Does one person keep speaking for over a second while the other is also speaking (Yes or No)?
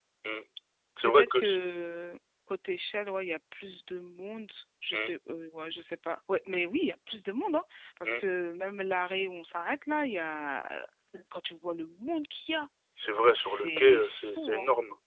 Yes